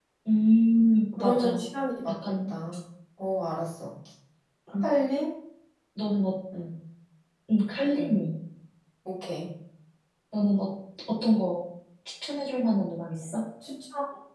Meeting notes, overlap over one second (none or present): none